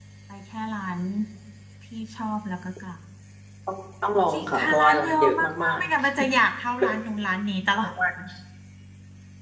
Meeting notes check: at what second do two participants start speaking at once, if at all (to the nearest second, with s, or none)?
4 s